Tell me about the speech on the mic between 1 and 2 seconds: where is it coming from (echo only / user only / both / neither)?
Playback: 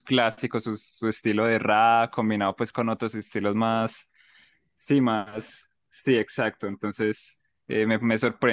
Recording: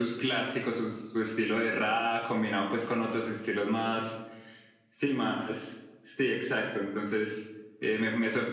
echo only